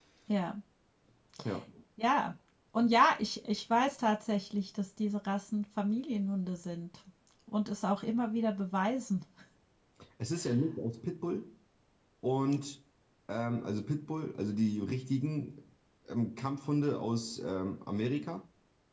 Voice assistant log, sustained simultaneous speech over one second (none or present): none